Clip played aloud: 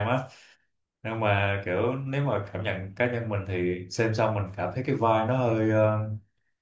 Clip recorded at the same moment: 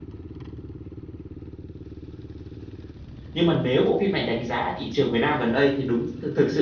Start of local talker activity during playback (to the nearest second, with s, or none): 3 s